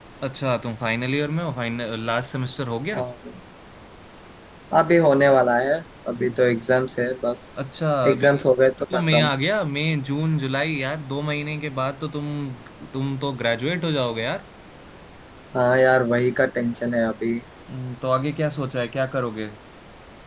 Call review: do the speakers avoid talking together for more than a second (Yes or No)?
Yes